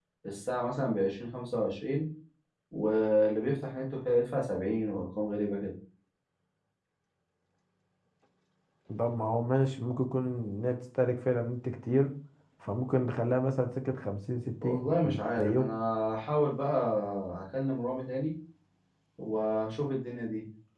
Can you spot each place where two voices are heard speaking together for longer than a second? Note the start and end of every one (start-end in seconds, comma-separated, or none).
none